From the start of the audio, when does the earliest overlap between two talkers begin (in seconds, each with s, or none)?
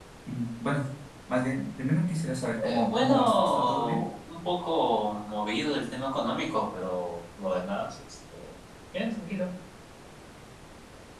2.6 s